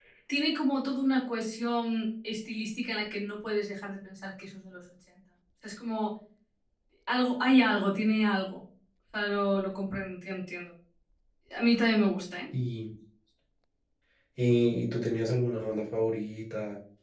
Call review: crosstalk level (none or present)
none